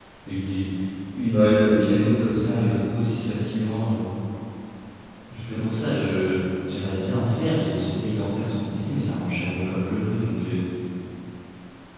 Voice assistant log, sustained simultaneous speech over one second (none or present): present